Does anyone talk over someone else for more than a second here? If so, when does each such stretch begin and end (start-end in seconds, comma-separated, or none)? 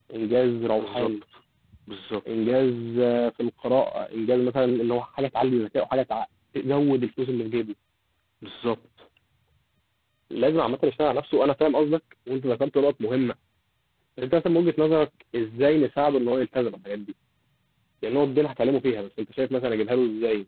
none